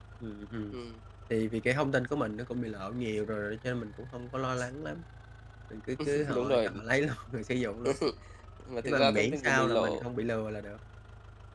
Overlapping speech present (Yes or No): Yes